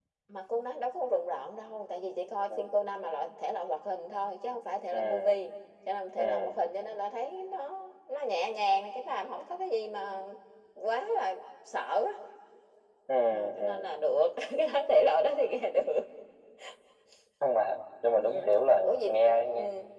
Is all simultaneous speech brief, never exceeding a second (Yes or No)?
Yes